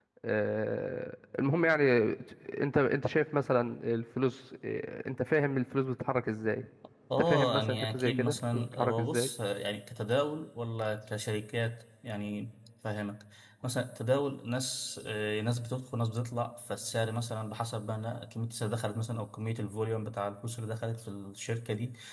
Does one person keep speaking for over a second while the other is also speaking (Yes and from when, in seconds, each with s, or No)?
Yes, from 7.2 s